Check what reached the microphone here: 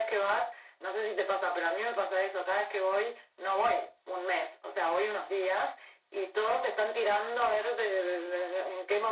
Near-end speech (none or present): none